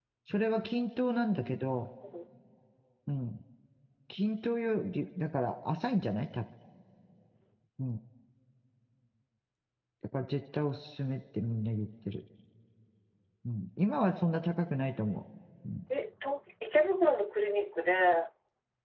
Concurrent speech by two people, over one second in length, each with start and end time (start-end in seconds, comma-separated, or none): none